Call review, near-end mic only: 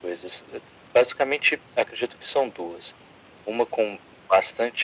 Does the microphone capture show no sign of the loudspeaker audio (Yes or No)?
No